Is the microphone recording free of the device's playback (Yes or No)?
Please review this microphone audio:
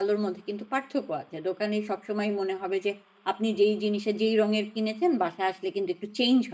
Yes